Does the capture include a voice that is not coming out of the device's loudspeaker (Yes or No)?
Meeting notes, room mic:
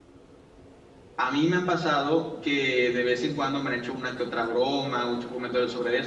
Yes